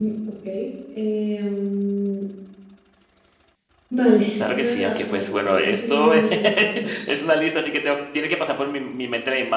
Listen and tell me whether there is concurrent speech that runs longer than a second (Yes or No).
Yes